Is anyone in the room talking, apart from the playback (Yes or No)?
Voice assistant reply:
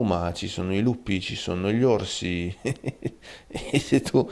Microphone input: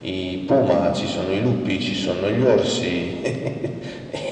No